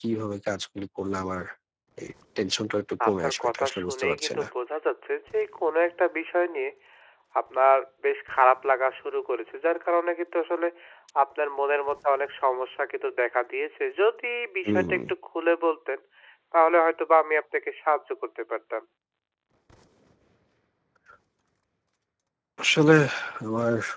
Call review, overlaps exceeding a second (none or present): present